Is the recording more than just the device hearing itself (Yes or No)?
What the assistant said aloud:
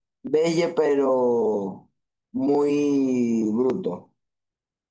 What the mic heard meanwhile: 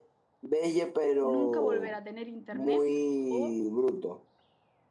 Yes